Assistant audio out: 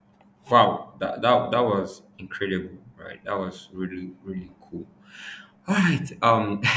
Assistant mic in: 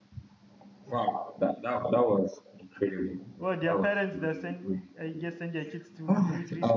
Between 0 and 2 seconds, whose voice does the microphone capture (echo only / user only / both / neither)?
echo only